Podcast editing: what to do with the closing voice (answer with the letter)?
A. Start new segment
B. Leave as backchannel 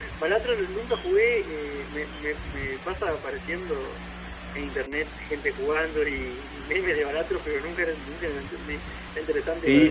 A